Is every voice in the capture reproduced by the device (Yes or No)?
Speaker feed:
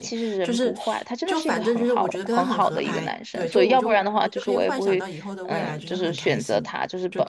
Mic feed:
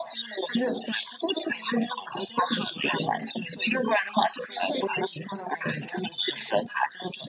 Yes